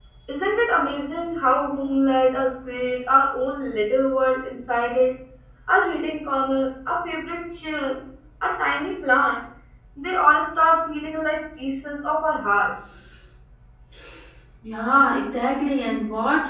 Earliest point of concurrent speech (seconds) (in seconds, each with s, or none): none